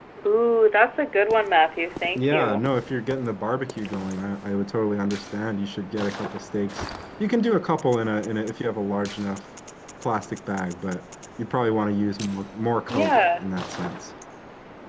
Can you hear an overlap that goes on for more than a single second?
No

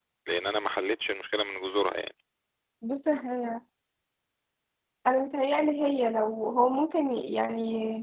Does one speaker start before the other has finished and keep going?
No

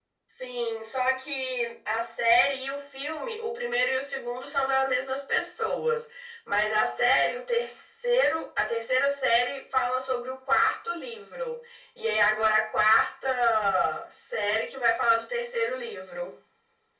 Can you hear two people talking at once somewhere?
No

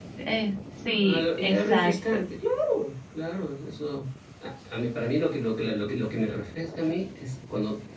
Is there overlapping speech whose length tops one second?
Yes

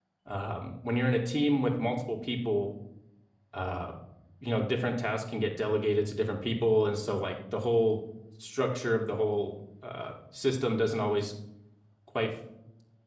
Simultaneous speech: No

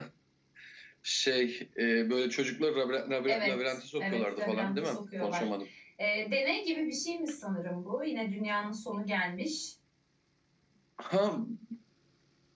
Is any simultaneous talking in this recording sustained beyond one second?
Yes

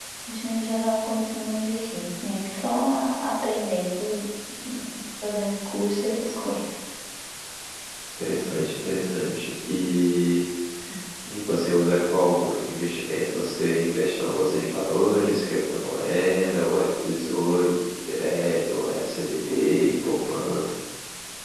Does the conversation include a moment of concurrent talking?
No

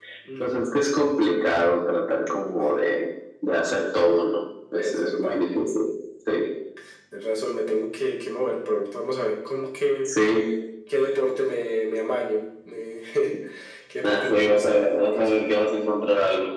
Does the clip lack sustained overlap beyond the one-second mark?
No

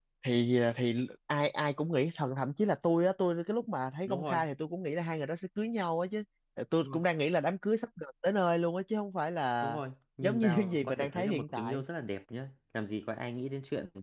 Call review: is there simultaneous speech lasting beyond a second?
Yes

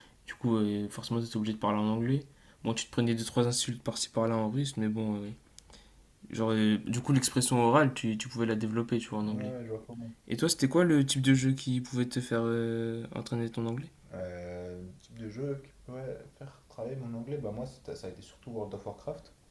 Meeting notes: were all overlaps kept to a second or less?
Yes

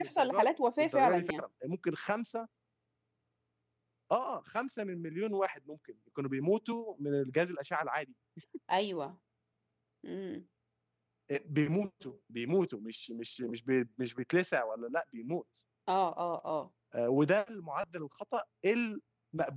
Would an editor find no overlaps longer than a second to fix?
No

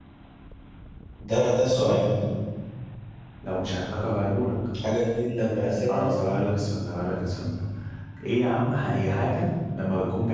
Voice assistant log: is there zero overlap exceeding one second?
Yes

